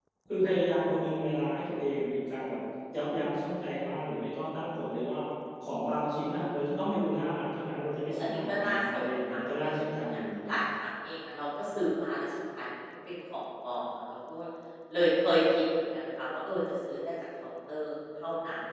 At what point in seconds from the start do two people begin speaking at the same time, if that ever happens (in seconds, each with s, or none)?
8.1 s